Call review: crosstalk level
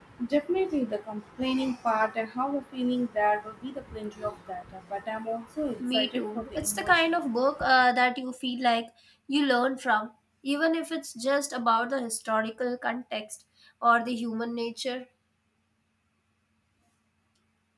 present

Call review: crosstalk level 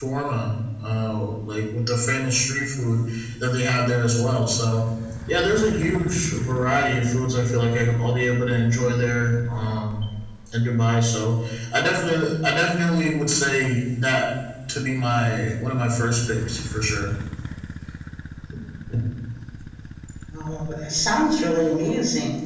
none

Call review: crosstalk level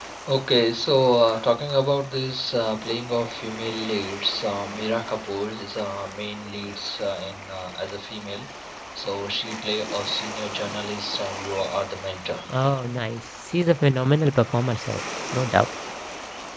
none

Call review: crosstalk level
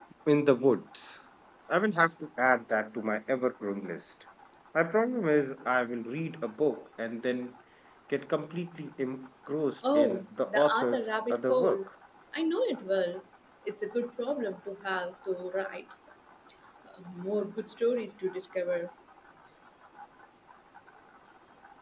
present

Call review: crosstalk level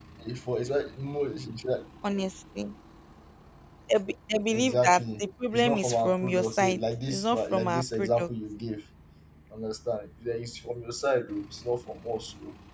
present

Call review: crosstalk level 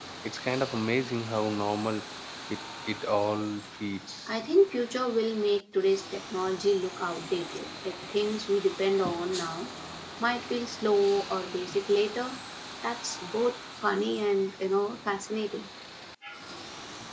none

